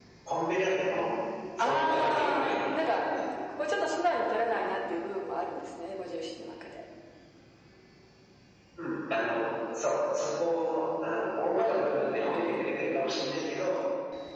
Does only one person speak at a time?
No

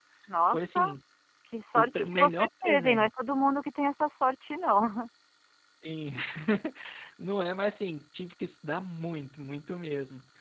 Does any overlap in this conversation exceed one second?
Yes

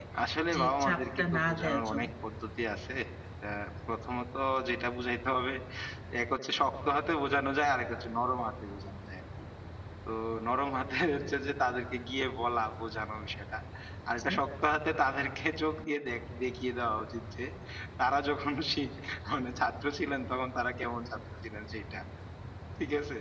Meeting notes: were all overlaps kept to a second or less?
No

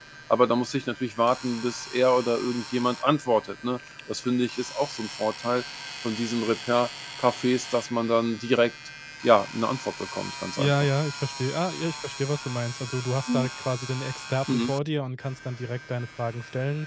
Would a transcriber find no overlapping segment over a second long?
Yes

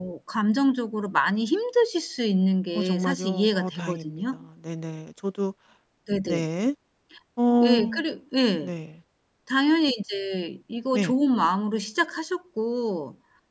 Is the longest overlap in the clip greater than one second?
Yes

